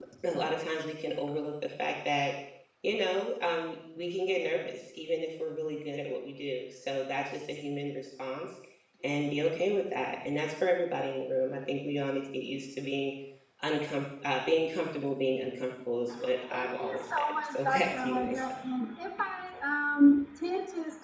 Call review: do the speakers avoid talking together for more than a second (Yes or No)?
No